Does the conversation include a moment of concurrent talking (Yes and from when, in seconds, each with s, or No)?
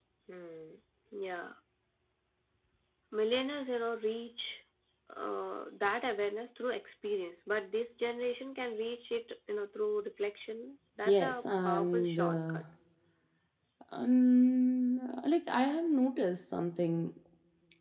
Yes, from 11.0 s